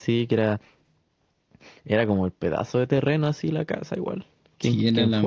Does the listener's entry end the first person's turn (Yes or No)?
Yes